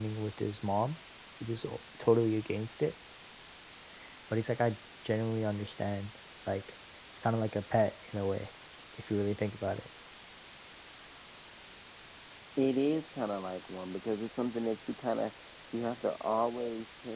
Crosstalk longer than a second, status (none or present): none